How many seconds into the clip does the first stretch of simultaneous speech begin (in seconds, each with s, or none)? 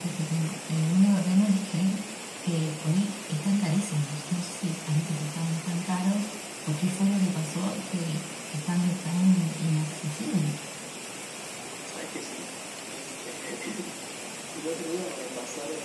none